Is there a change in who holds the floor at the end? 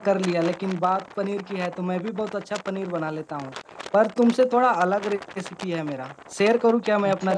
Yes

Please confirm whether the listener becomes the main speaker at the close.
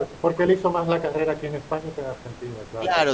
Yes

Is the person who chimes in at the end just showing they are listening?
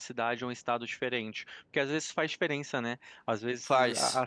Yes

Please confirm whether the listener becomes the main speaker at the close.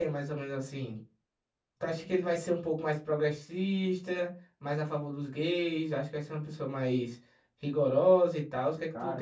Yes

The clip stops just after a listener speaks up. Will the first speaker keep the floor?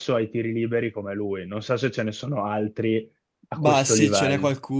No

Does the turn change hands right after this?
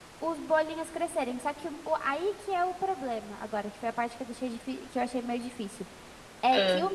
No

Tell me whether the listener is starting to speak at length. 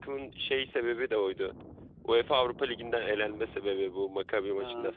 Yes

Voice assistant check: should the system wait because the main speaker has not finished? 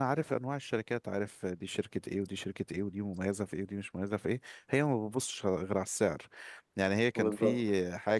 Yes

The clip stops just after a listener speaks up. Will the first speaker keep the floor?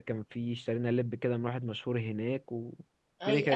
No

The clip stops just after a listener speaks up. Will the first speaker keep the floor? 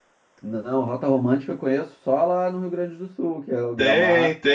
No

